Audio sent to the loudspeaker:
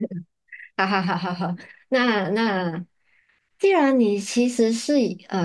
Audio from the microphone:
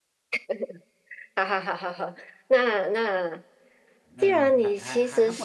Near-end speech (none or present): present